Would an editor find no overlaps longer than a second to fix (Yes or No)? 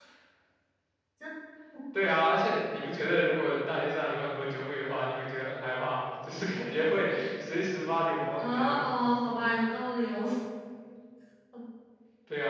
Yes